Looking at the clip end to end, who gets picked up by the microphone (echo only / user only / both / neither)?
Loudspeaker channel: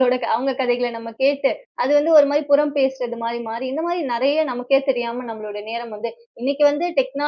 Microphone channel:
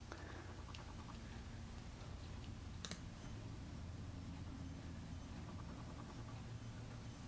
neither